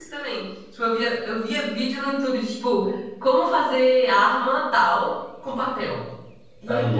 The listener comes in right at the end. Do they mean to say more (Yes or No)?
No